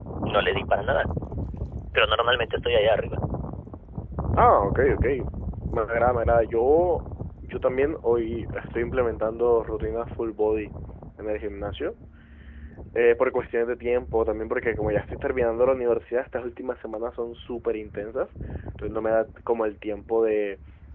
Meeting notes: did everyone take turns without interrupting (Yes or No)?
Yes